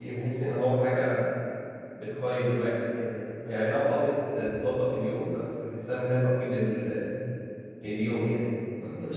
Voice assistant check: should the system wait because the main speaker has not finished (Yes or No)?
No